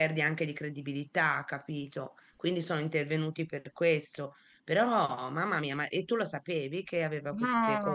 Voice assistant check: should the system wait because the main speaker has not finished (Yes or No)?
No